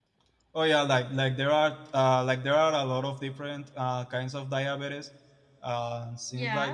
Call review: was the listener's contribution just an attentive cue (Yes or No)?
No